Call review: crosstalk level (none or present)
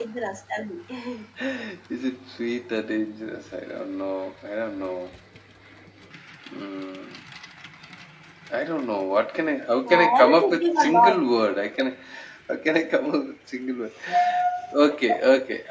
present